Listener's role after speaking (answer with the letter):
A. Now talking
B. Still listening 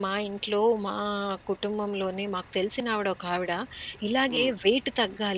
B